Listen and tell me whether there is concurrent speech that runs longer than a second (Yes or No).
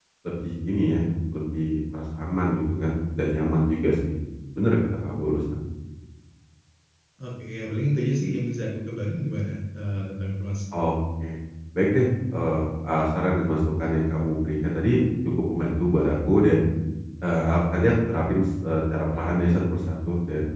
No